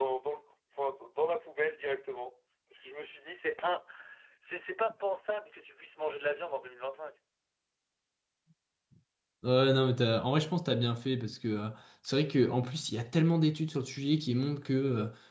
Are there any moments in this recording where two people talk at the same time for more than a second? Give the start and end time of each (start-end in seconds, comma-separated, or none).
none